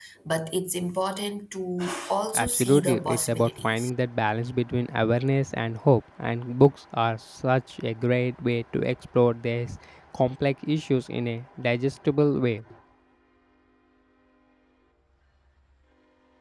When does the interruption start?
2.3 s

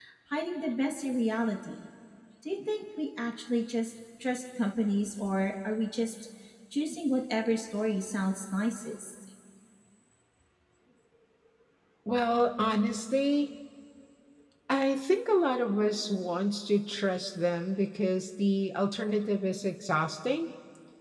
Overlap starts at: none

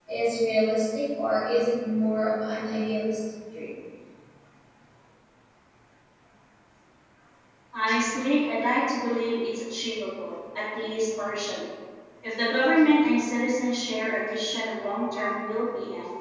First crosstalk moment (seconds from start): none

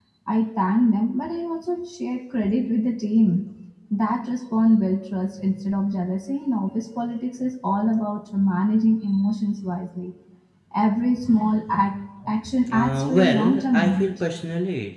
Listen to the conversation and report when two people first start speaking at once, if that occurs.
12.4 s

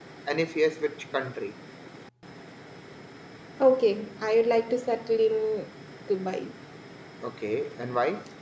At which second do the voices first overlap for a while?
none

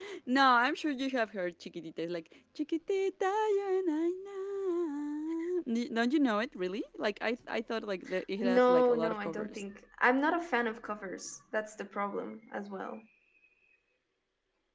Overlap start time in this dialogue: 8.4 s

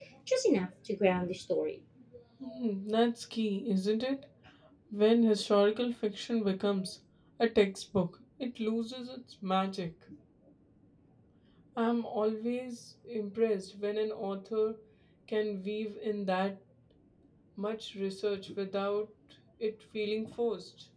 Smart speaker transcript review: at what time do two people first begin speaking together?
none

